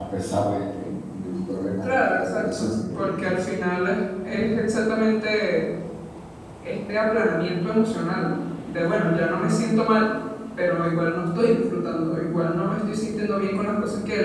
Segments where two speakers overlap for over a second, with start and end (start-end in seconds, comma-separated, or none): 1.8-3.5